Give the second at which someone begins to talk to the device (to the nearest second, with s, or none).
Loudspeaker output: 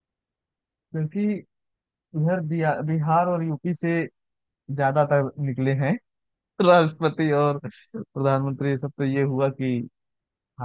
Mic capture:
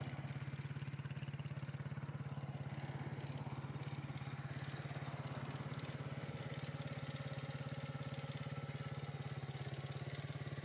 none